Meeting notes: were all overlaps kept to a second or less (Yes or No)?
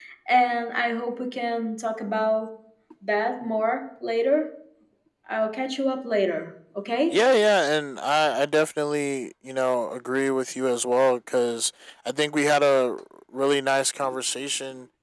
Yes